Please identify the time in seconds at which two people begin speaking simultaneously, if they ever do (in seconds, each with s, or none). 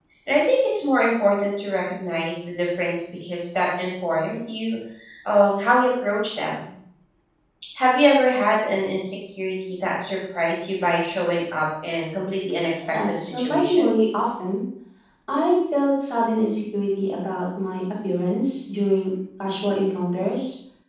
12.7 s